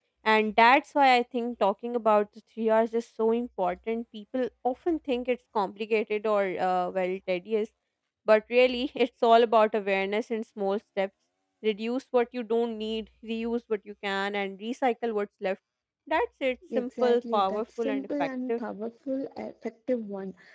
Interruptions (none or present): present